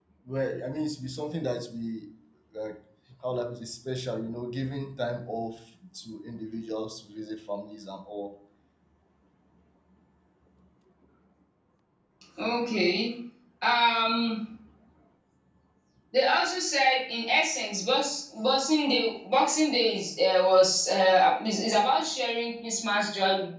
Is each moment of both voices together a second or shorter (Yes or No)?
Yes